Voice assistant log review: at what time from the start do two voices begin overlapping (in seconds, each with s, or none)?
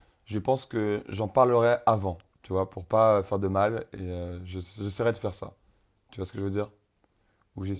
none